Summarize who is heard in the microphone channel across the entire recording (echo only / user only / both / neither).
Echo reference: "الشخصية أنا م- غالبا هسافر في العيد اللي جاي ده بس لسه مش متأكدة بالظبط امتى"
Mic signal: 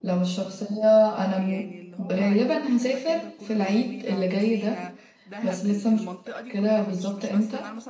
both